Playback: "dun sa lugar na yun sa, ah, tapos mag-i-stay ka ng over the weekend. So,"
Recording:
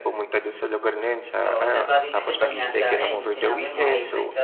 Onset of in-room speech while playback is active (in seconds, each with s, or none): 1.4 s